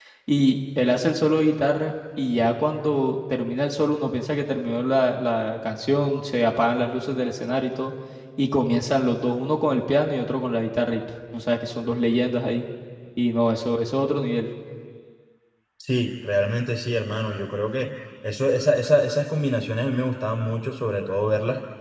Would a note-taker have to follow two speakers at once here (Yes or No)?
No